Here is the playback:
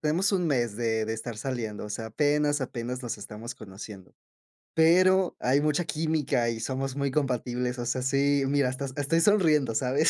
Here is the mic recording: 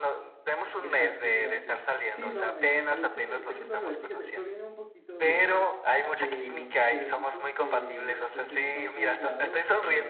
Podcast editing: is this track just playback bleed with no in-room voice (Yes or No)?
No